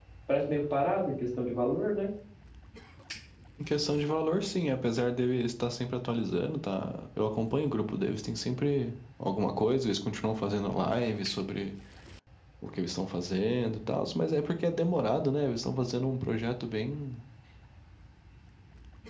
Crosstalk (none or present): none